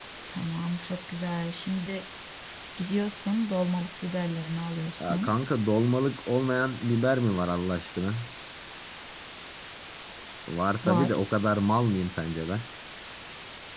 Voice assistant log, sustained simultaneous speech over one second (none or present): none